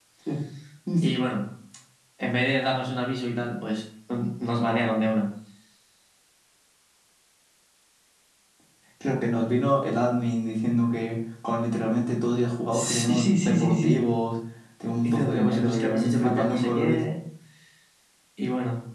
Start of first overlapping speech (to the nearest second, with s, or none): 13 s